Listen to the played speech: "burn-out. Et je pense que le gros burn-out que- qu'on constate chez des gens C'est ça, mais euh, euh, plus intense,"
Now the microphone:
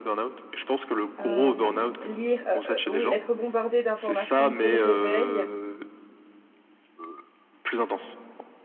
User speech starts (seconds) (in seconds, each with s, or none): 1.2 s